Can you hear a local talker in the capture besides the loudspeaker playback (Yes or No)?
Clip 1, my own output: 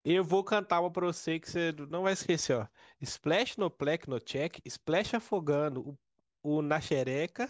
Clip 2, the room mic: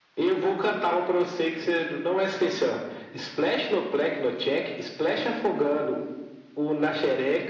No